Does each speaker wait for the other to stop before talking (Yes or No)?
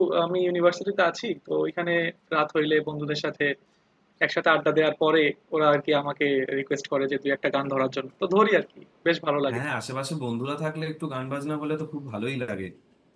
Yes